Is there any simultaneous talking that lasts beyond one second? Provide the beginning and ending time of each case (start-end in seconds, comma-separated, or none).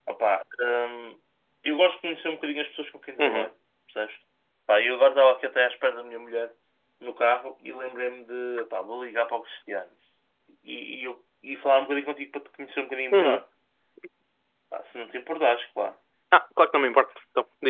none